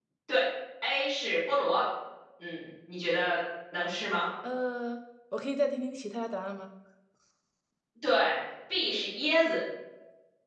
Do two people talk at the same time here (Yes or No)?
No